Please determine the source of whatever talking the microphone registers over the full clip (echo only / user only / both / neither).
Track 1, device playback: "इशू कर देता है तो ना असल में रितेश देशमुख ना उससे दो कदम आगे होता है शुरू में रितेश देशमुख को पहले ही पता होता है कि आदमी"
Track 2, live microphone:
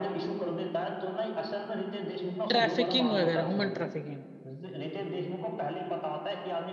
both